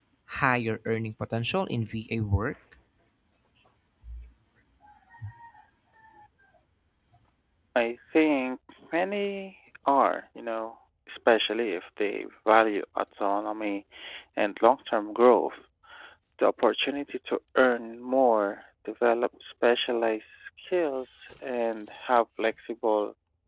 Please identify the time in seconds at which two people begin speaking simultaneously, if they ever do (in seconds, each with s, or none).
none